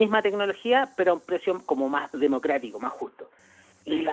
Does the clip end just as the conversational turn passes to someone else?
Yes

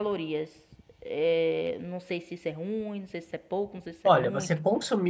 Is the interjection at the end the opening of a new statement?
Yes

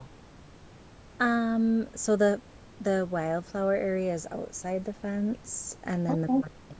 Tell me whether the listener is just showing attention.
Yes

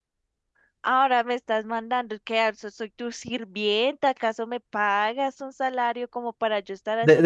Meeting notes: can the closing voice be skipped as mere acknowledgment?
No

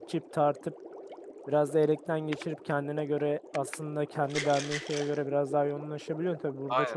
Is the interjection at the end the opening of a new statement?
No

